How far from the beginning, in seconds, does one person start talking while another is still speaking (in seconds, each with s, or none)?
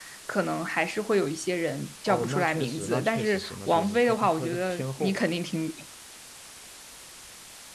2.1 s